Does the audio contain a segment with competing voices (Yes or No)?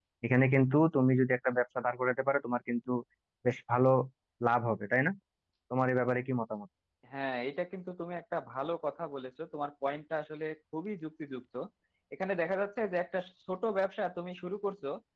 No